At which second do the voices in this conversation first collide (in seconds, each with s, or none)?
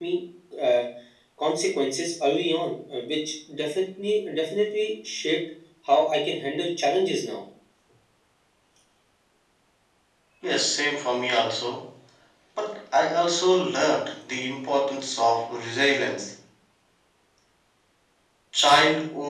none